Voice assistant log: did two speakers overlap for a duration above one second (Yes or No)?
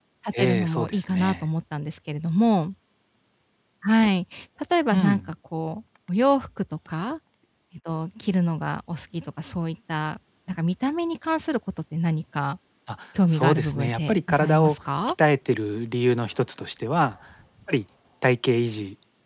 Yes